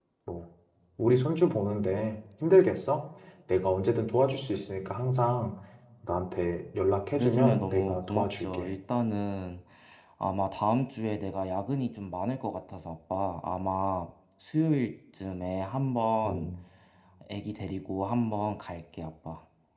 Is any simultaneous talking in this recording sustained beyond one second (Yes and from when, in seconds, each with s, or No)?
Yes, from 7.1 s